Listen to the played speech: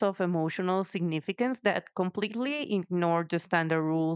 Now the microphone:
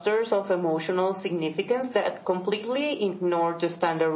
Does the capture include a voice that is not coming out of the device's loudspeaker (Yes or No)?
No